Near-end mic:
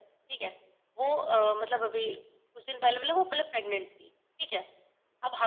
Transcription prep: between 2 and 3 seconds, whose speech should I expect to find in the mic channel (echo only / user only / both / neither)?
echo only